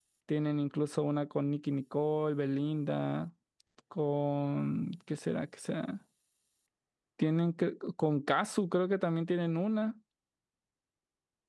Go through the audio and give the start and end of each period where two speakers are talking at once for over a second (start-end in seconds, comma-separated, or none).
none